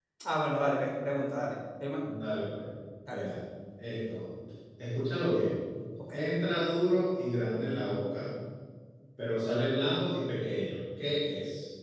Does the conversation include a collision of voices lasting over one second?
No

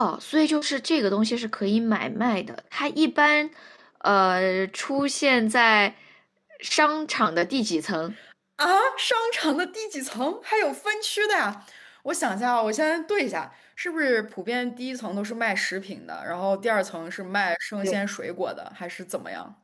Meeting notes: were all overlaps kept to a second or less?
Yes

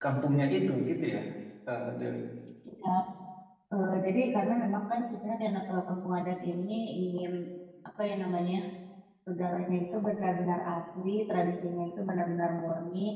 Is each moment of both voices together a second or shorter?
Yes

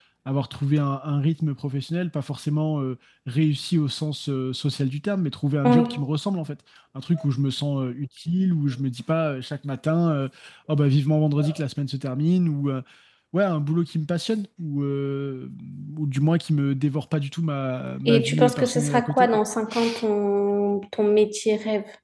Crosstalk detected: Yes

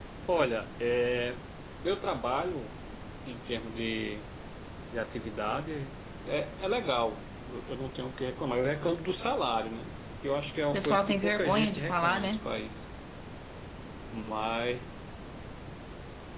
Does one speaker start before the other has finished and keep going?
Yes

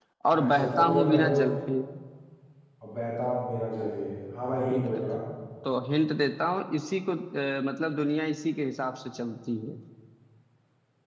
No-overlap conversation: No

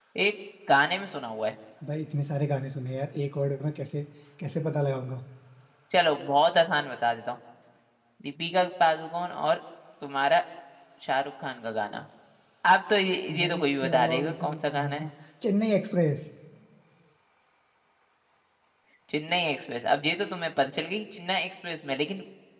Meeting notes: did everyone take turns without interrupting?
No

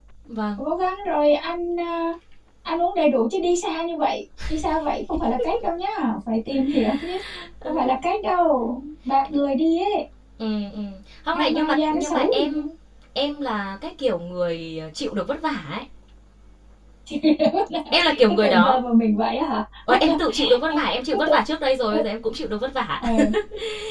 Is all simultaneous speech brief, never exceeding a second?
No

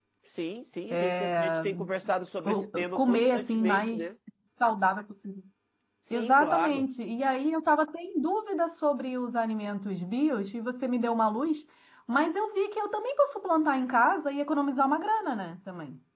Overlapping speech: Yes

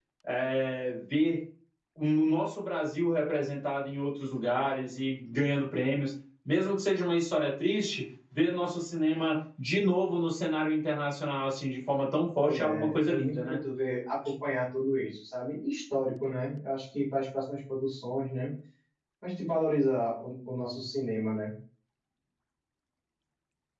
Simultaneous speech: Yes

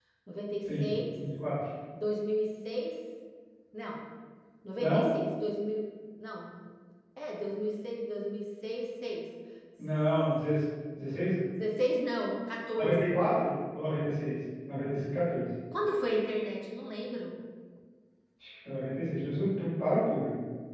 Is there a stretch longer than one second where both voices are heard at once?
No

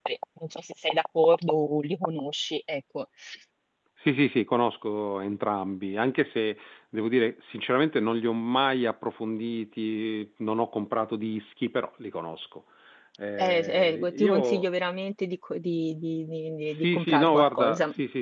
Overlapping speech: Yes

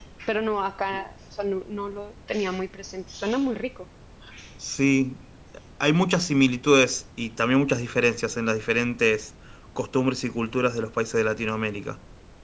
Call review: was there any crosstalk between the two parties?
No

